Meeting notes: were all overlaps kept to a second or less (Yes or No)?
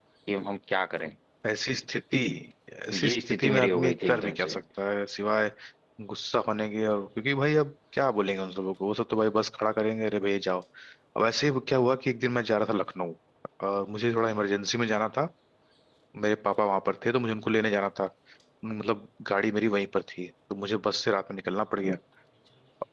No